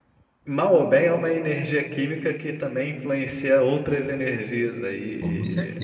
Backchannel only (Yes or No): No